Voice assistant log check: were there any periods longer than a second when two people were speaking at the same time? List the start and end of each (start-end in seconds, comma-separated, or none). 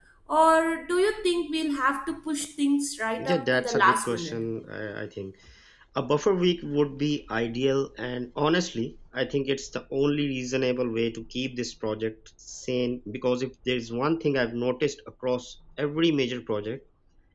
3.2-4.4